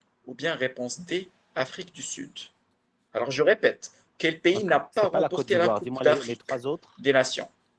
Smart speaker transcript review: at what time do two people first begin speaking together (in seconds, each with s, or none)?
4.5 s